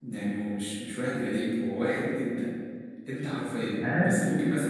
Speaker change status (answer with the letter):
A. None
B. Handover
A